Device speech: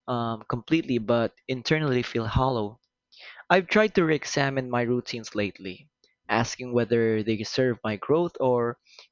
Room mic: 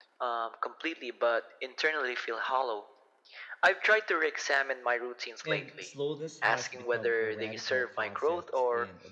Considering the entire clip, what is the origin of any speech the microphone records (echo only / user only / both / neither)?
both